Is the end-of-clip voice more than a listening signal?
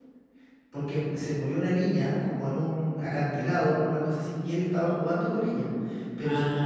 No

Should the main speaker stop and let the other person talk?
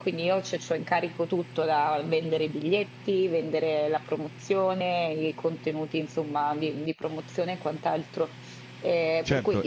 Yes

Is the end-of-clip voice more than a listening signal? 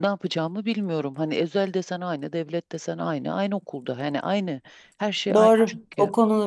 Yes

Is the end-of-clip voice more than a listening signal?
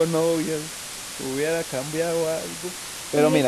No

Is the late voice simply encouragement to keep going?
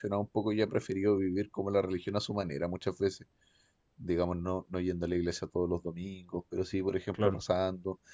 Yes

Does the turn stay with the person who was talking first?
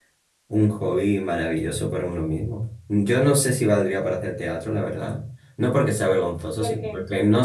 Yes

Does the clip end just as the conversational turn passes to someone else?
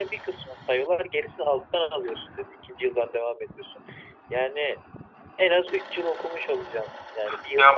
Yes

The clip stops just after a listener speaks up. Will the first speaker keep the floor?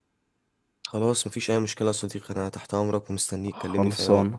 No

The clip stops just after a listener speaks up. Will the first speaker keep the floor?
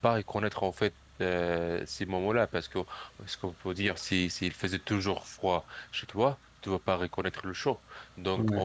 Yes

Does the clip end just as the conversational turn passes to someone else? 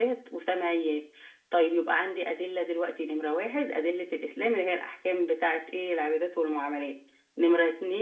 No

